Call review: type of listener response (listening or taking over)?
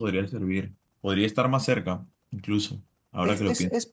taking over